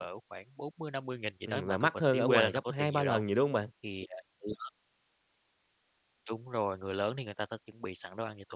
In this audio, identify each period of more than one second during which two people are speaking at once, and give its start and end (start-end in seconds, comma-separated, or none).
1.5-3.2